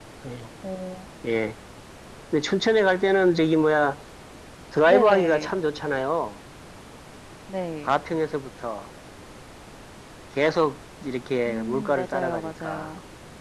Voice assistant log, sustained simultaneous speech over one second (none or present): present